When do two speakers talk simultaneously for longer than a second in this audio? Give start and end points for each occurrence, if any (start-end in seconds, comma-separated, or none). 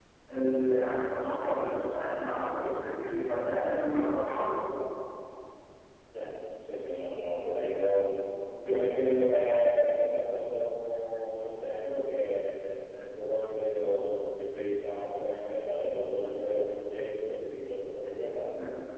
none